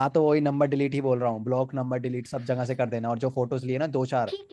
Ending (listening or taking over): taking over